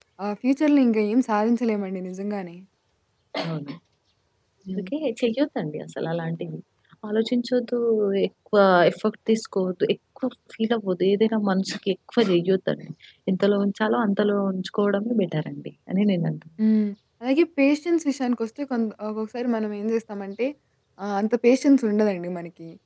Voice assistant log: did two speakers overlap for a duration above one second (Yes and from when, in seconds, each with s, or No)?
No